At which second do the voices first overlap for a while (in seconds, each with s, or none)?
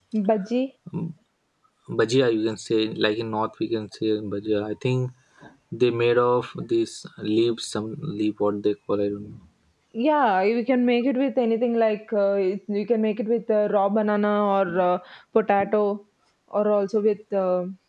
none